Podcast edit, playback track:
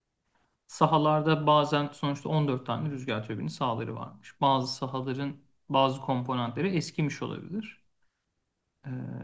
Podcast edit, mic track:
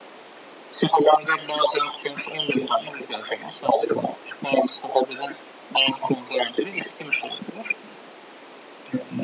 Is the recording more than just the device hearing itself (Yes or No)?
No